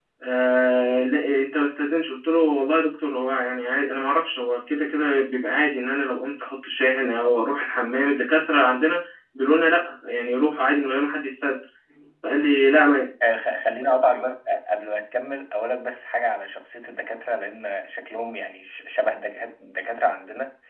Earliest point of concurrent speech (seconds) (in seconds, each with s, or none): none